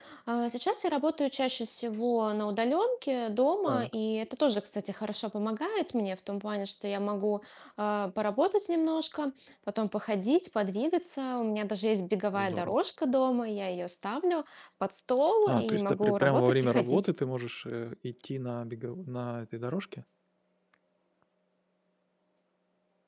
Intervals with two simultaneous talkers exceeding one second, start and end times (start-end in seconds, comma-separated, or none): 15.5-17.1